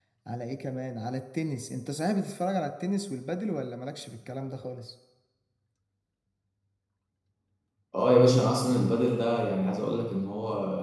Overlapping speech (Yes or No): No